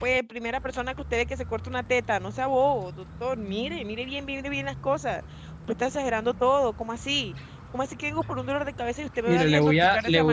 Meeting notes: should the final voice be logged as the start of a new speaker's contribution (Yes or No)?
Yes